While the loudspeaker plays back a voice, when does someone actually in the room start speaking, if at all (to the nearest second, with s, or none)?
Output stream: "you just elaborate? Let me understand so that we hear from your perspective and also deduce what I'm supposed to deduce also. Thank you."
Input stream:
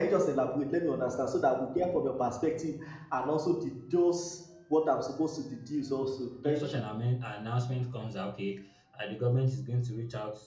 6 s